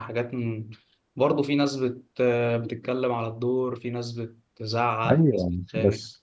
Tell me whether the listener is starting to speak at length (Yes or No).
Yes